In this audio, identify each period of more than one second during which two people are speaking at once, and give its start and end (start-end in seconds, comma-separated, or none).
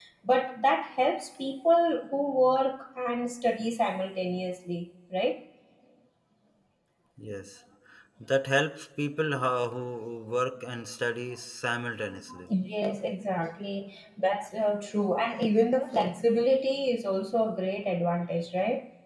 none